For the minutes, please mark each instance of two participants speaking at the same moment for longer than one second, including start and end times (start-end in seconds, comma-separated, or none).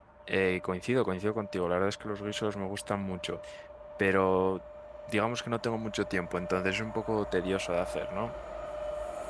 none